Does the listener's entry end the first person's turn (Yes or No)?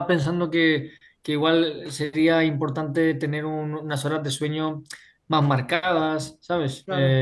No